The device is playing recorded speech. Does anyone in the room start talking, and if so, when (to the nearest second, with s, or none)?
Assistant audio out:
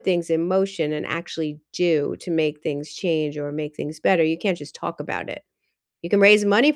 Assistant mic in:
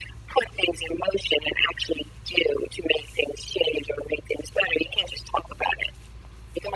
none